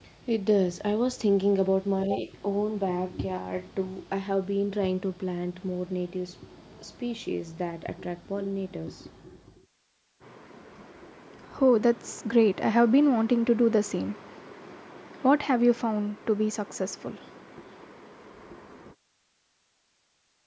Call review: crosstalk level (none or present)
none